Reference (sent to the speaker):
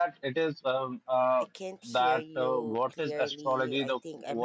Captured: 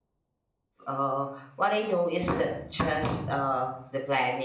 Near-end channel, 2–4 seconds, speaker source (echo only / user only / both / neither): user only